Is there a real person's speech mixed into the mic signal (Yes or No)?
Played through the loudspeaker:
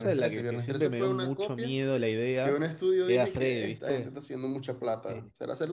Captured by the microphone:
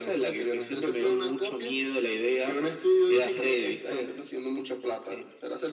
No